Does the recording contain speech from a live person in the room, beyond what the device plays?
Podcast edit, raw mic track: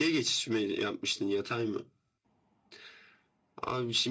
No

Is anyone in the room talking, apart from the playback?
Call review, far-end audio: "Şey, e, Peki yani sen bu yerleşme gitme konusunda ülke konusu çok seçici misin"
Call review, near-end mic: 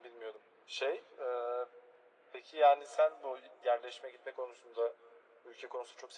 No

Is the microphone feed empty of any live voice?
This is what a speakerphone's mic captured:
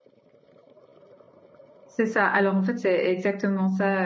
No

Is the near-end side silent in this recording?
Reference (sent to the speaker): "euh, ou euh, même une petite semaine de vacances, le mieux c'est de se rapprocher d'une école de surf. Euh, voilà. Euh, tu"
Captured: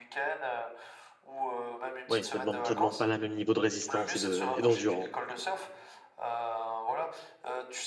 No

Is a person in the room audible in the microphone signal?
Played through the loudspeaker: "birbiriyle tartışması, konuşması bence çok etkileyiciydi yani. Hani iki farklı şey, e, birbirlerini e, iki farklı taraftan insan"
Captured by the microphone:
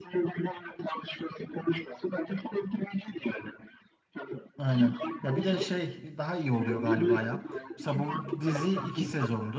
Yes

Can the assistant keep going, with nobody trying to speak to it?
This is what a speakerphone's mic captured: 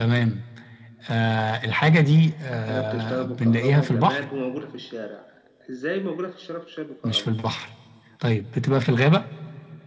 No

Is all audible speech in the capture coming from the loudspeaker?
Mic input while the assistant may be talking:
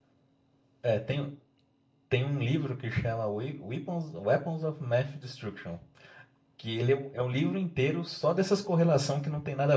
No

